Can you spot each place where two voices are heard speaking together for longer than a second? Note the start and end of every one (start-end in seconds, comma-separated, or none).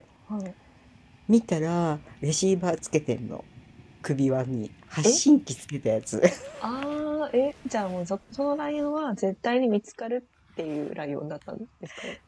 none